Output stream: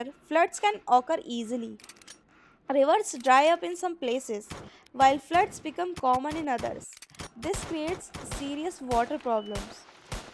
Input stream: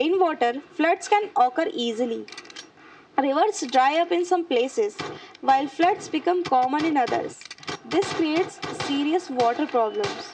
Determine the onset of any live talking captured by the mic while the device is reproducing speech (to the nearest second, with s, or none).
none